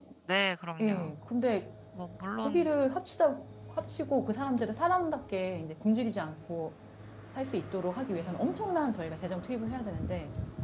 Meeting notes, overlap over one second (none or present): none